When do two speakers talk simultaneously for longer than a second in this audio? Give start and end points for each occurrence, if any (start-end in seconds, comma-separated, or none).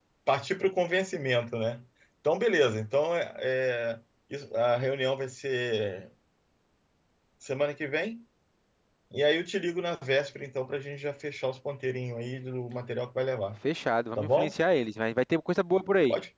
none